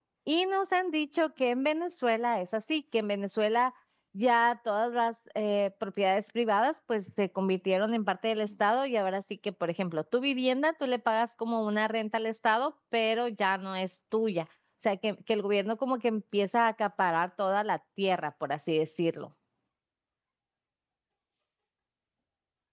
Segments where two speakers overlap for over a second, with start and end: none

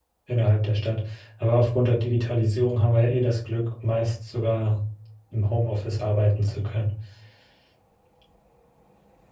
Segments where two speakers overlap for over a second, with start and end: none

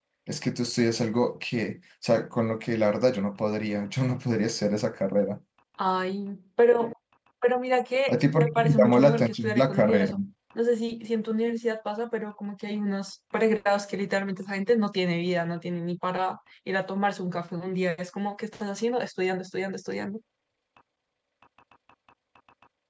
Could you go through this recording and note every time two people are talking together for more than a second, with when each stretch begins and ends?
8.1-10.1

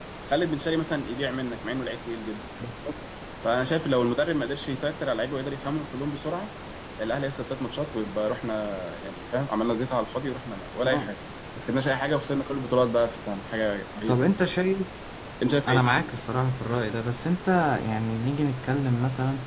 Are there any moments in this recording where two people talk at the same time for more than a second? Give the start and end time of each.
none

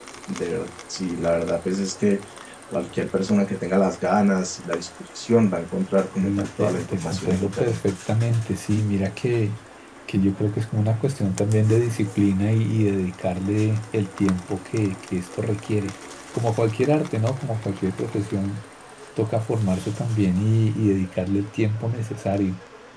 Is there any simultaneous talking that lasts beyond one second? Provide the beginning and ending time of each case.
6.2-7.8

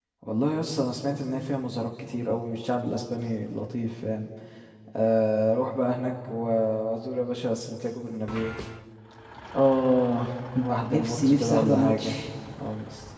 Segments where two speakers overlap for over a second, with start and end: 10.9-12.2

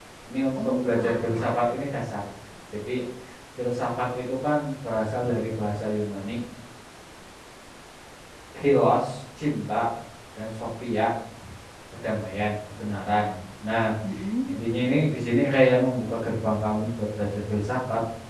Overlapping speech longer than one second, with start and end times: 0.6-1.8

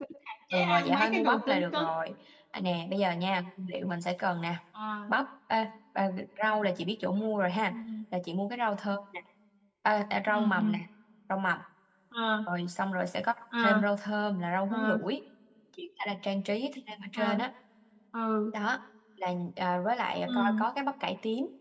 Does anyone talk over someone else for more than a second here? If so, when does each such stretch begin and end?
0.5-1.9

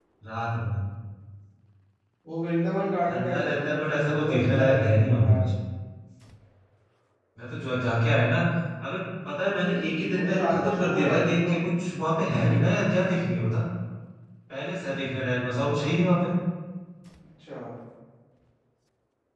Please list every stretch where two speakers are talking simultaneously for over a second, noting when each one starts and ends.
3.1-5.5, 10.0-11.6

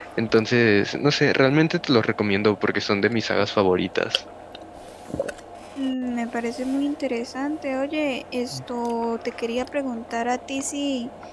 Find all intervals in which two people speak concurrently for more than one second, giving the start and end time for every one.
none

